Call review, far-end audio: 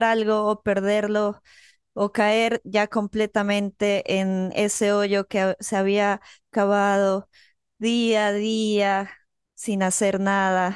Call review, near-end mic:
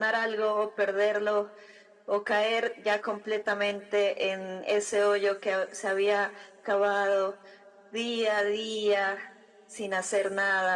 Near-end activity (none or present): none